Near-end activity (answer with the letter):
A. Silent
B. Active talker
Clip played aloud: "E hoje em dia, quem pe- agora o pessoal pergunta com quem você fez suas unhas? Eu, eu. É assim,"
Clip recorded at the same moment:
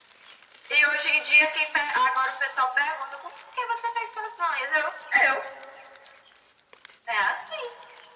A